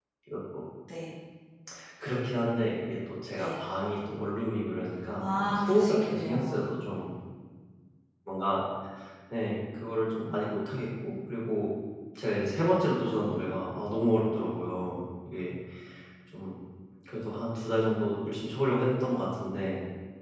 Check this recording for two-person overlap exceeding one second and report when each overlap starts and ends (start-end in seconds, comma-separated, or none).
5.2-6.7